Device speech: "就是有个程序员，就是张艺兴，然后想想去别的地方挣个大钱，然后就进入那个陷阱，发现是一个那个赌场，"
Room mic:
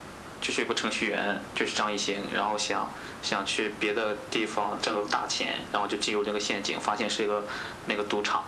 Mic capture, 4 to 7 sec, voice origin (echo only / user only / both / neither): echo only